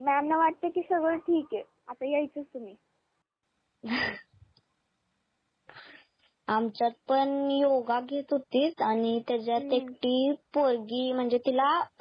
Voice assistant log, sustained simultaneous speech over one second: none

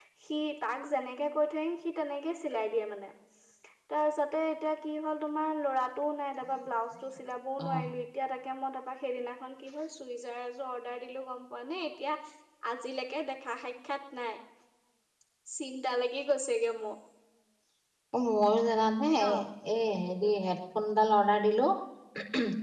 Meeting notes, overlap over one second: none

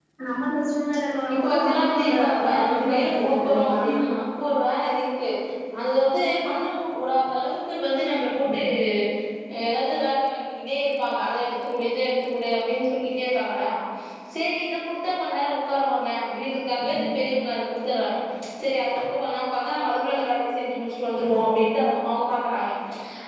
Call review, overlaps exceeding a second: present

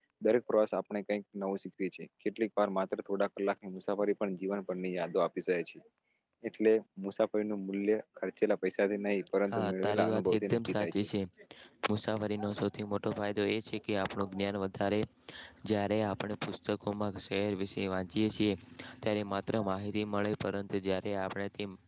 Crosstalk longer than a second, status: present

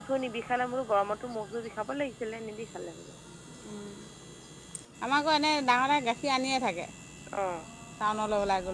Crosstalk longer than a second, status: none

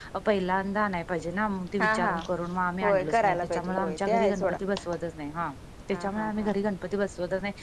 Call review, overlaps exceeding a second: present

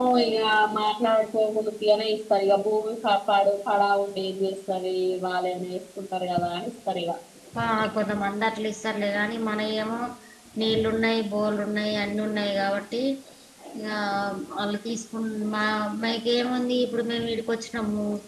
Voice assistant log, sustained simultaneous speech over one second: none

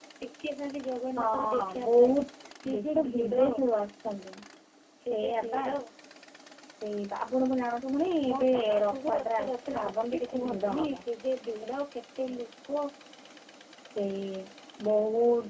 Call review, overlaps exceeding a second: present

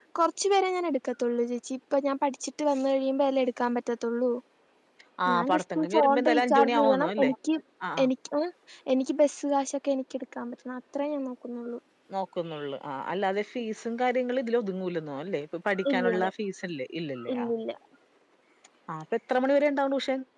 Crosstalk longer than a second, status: present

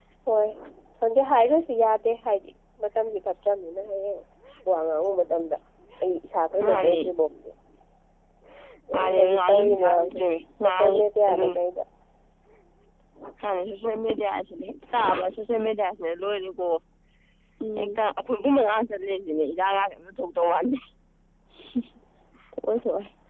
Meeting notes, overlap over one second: present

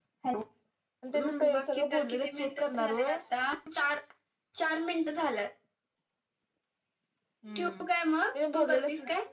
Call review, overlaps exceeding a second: present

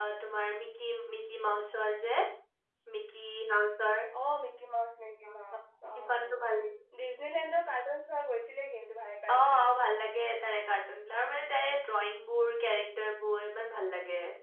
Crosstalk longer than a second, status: none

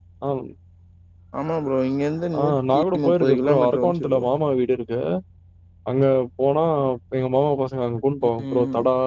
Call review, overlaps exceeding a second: present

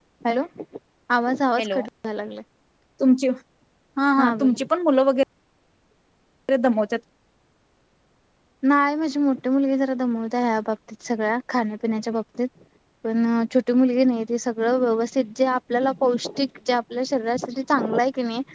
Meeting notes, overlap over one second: none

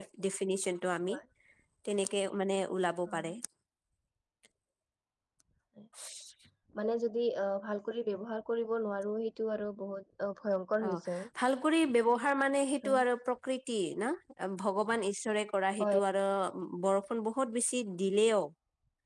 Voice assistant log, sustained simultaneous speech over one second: none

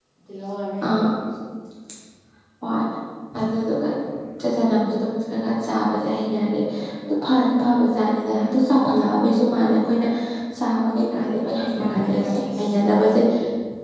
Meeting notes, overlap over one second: present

